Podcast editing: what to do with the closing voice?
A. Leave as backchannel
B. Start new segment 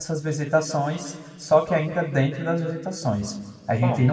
A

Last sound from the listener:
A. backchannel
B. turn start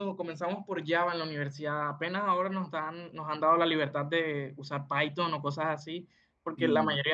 A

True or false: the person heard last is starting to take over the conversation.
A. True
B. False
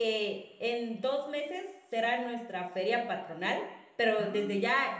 B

